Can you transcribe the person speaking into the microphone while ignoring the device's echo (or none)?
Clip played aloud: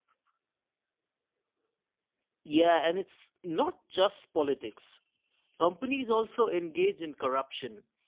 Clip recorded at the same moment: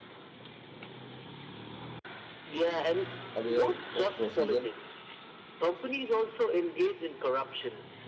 aware of procedure,